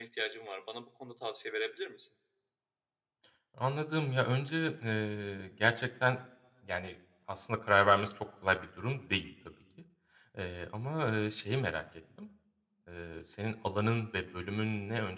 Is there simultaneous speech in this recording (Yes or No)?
No